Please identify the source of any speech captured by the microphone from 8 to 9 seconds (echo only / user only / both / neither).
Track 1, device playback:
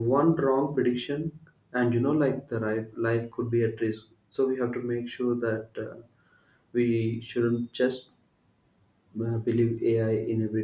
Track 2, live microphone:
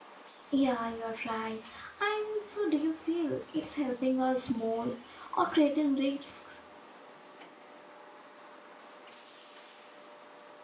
neither